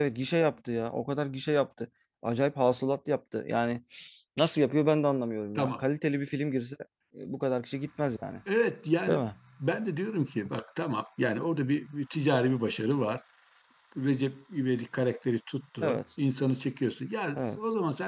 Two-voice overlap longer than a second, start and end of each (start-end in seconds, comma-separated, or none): none